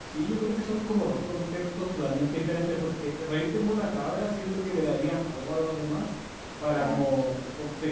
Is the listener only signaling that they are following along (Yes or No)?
Yes